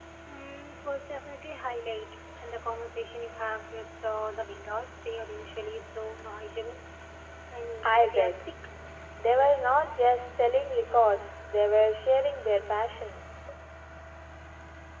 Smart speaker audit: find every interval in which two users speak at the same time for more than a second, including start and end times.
none

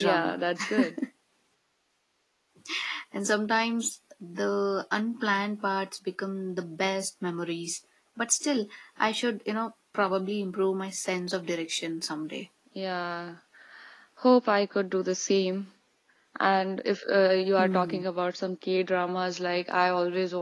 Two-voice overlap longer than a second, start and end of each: none

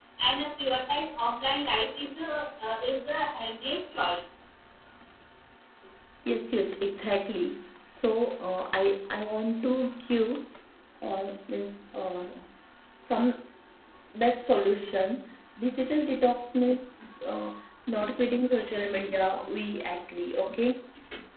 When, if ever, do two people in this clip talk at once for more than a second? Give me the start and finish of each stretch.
none

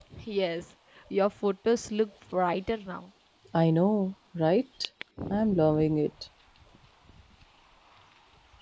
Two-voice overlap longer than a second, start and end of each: none

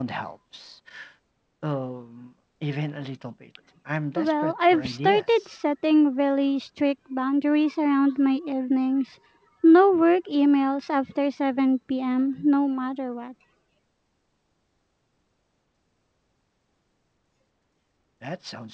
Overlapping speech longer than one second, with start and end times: 4.2-5.6

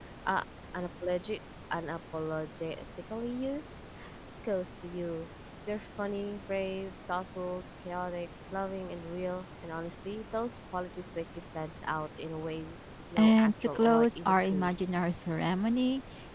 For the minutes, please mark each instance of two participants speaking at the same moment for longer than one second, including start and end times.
13.2-14.7

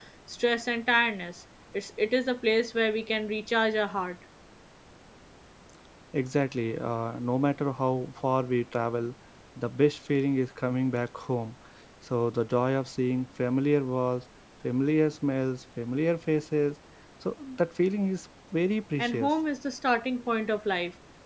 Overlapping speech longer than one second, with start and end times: none

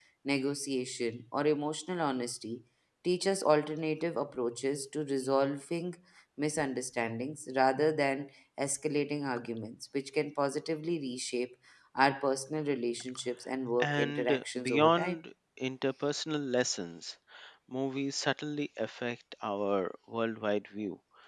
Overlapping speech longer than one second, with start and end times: 13.8-15.2

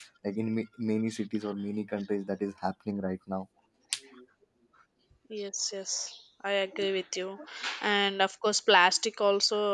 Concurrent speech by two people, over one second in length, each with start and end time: none

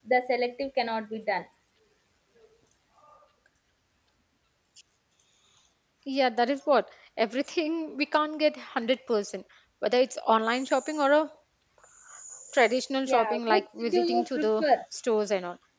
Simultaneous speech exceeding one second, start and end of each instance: 13.1-14.6

